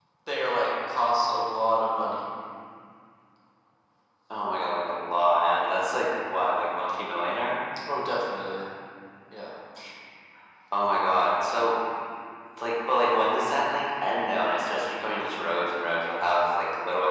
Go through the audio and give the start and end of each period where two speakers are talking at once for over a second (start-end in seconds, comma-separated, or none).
none